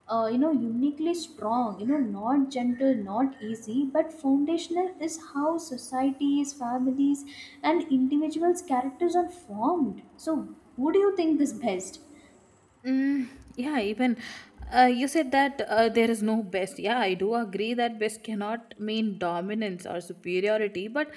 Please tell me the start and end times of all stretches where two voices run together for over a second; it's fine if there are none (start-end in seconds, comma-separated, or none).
none